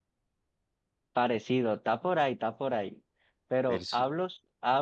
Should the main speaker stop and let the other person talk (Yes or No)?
No